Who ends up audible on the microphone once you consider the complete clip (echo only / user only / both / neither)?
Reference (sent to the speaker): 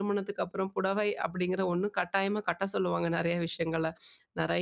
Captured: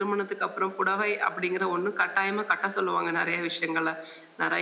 echo only